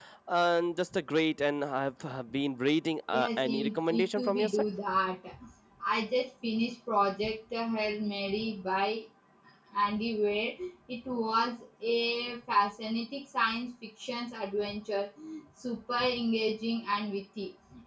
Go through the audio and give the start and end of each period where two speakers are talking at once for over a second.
3.1-4.6

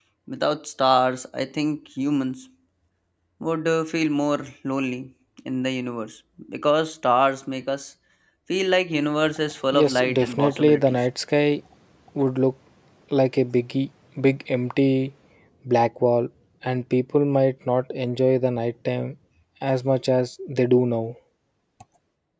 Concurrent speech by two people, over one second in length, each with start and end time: 9.7-11.1

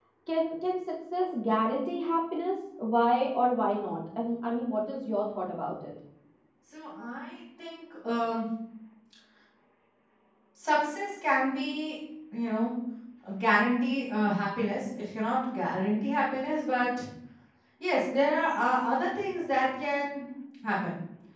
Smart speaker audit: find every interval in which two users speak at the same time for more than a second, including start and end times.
none

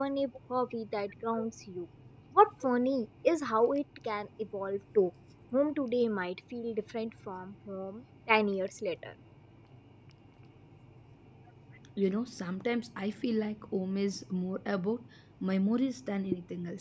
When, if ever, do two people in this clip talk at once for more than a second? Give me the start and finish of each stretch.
none

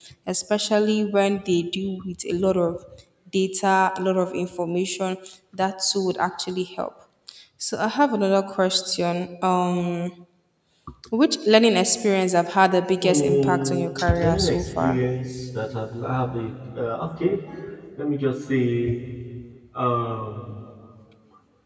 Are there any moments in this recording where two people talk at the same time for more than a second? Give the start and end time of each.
13.0-15.1

